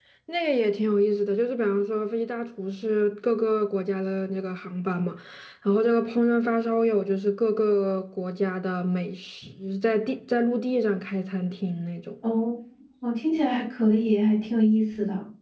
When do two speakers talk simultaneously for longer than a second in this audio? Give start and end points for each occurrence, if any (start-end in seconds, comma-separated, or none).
none